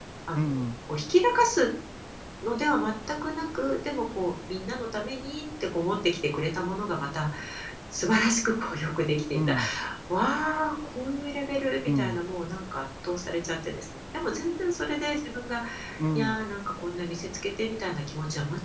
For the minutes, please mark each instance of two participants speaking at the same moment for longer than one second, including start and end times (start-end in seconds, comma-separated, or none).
none